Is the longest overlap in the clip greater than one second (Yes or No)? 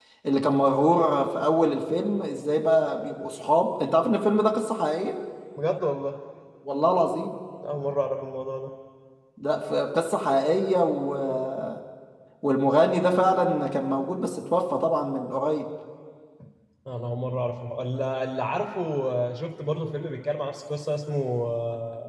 No